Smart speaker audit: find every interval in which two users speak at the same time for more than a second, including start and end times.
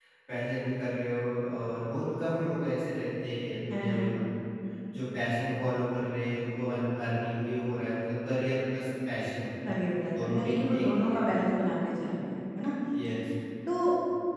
10.0-11.2

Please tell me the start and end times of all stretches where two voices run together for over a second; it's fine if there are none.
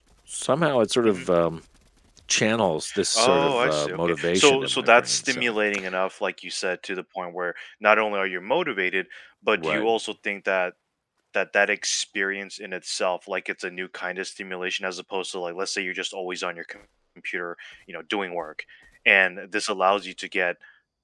3.1-5.5

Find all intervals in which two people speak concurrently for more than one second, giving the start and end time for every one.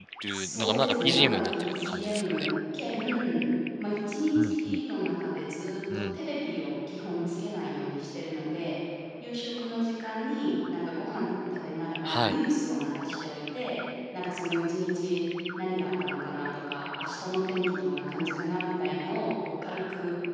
0.6-2.5

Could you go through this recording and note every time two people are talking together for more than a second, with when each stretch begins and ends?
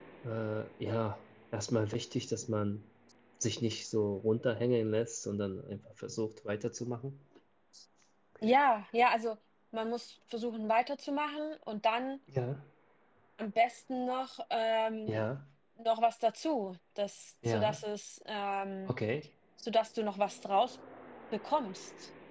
none

